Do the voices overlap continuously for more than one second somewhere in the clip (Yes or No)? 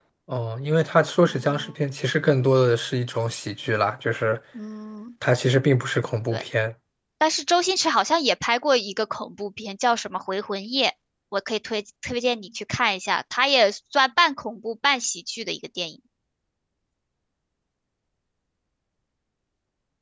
No